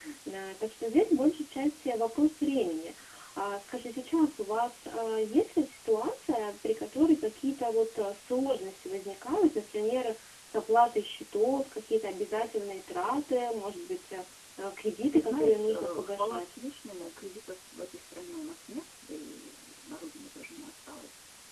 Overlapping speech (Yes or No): Yes